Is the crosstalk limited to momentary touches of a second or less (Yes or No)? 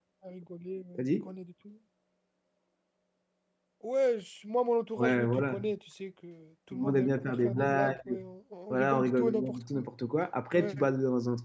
No